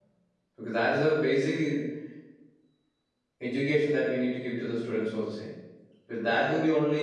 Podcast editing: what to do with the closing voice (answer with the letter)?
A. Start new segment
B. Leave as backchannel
B